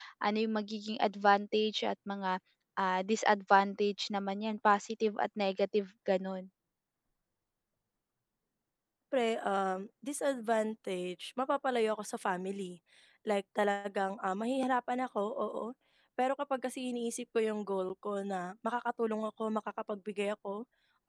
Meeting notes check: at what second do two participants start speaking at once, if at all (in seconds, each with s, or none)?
none